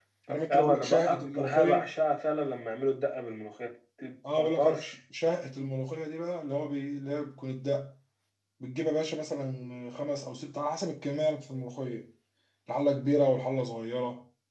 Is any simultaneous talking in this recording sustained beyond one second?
Yes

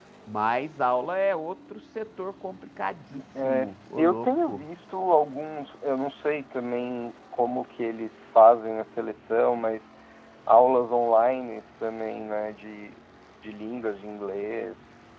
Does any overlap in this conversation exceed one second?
Yes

